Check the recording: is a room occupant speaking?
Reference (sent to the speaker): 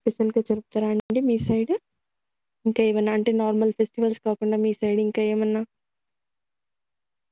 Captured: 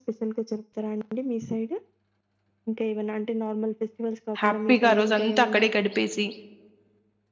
Yes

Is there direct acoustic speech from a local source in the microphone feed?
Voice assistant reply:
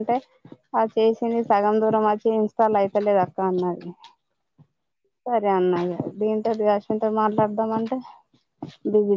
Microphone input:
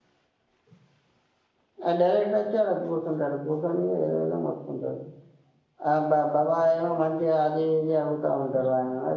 Yes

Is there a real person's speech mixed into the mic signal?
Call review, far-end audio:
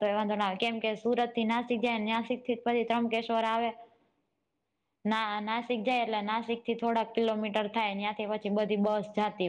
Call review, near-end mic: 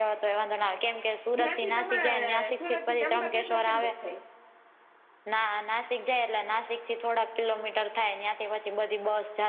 Yes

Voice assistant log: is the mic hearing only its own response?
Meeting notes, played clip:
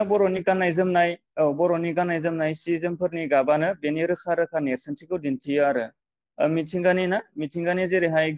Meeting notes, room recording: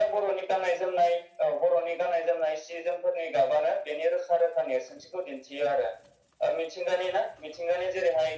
Yes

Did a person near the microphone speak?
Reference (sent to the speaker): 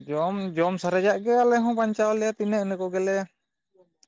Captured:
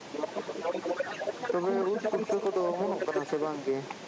Yes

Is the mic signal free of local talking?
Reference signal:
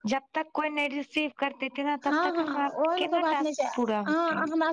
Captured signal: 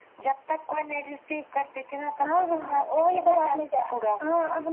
Yes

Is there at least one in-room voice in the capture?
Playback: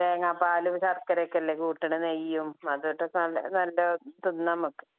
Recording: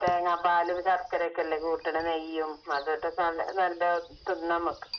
No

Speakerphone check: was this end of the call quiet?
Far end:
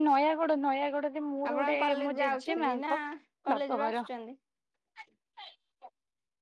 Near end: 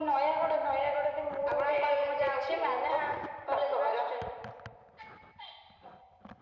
Yes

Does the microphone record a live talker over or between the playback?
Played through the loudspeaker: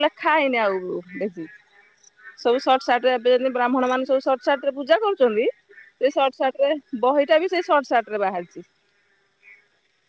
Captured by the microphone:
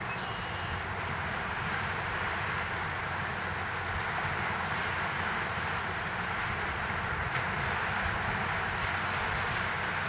No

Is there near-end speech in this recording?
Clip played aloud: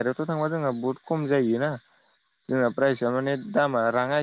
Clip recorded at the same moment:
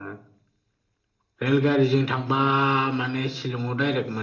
Yes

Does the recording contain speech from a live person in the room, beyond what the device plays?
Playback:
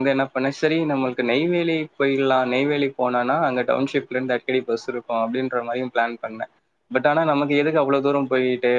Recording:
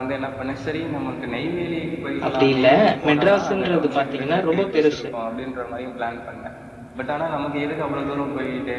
Yes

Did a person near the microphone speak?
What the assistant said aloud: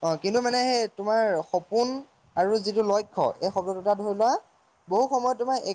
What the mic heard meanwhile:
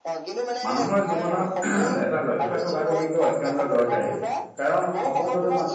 Yes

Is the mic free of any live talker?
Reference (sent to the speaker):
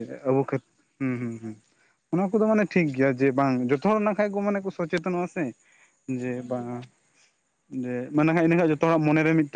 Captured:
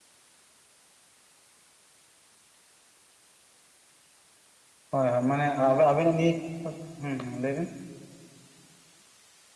No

